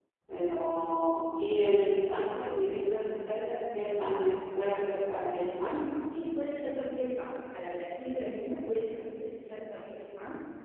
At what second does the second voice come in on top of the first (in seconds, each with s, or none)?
none